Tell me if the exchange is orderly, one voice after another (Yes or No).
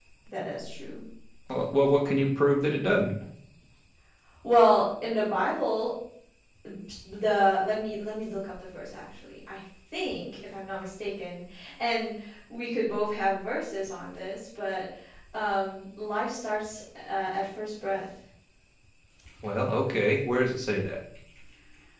Yes